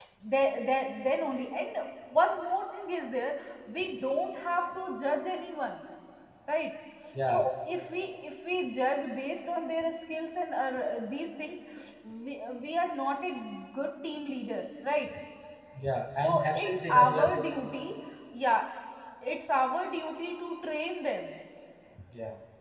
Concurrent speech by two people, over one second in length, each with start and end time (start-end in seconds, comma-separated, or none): 16.2-17.4